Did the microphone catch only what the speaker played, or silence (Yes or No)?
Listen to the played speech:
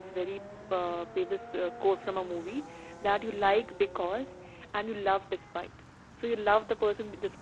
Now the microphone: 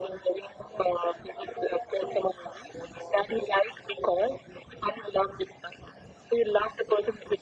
Yes